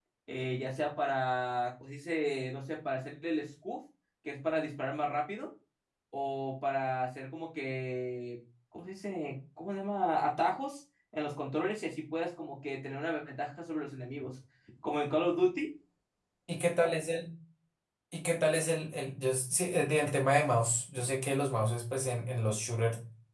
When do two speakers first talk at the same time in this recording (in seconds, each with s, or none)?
none